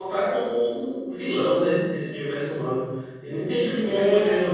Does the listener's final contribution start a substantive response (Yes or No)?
No